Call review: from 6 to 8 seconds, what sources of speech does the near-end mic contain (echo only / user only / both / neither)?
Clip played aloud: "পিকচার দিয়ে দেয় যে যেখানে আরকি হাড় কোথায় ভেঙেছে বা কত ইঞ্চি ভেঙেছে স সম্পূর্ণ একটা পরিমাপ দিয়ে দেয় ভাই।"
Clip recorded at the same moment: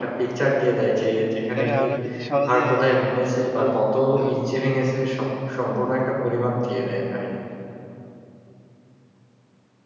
echo only